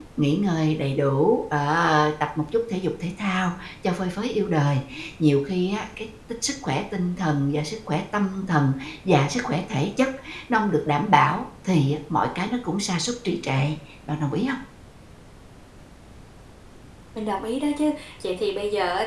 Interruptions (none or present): none